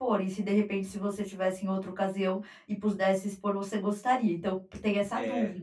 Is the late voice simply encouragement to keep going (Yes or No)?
No